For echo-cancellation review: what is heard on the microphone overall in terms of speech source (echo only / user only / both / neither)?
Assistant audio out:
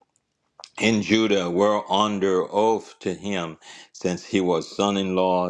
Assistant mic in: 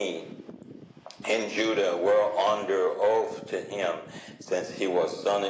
echo only